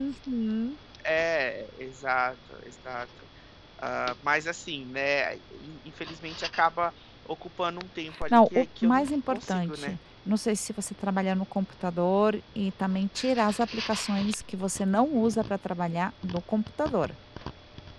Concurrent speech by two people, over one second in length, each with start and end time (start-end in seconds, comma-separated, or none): 8.3-10.0